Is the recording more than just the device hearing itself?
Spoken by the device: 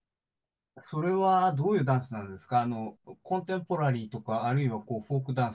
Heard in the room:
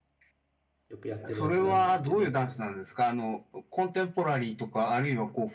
Yes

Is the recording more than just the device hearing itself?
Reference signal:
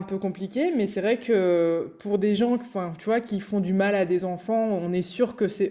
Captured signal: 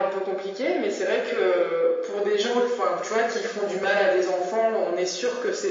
No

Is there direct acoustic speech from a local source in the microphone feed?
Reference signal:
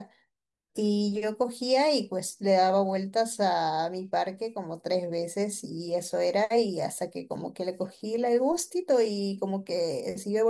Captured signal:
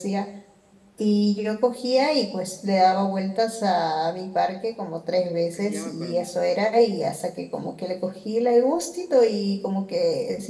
Yes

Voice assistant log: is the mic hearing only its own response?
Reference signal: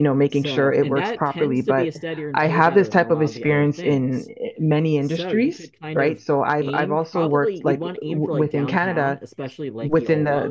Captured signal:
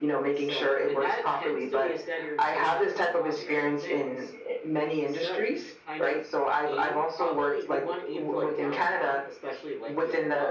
Yes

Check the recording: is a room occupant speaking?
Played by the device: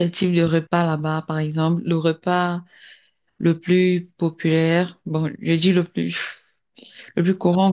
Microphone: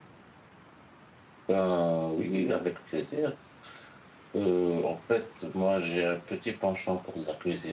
Yes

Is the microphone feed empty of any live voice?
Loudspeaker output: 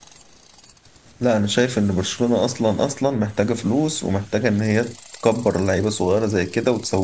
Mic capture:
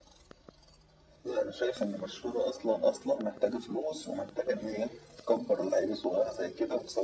Yes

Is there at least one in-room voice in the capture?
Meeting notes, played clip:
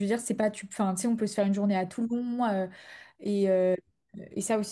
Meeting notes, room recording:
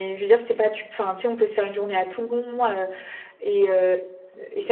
No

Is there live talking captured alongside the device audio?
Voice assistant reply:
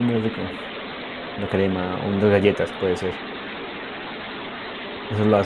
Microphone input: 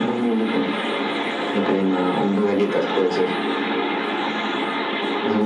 No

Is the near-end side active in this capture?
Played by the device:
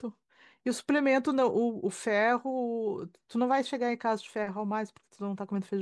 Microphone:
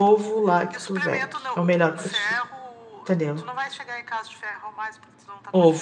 Yes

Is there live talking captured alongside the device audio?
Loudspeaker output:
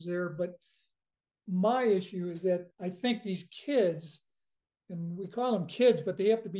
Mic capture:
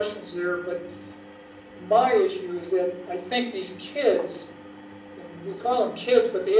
No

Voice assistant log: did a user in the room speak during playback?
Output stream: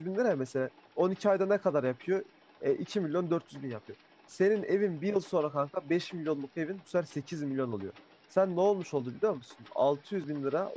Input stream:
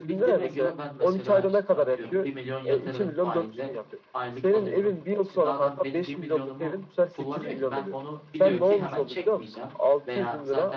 Yes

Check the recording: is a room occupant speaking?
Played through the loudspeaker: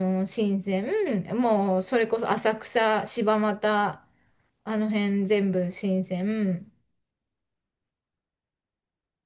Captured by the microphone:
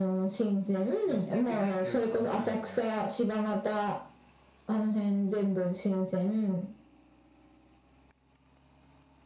Yes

